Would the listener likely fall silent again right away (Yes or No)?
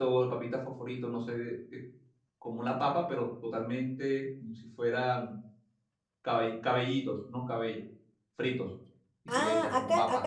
No